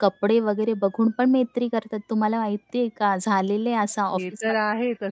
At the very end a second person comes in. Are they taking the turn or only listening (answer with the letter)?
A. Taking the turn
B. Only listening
A